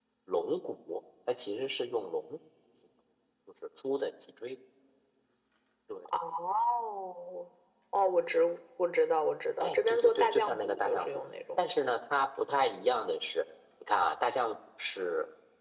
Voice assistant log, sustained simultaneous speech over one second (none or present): present